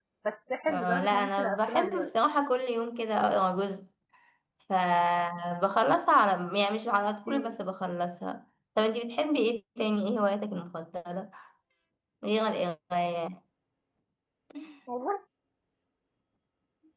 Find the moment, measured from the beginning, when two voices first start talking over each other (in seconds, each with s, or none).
0.7 s